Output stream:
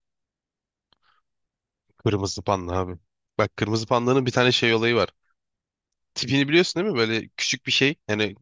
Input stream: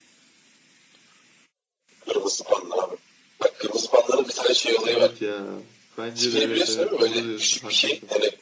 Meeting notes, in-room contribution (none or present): present